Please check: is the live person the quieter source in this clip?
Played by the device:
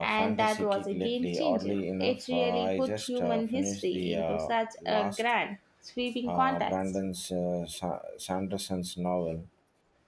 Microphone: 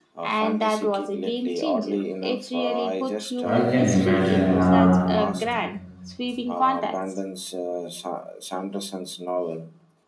No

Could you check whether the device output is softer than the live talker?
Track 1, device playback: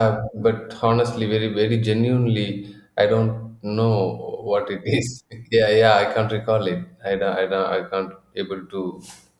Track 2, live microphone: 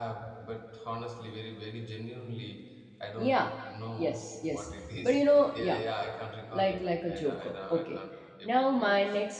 Yes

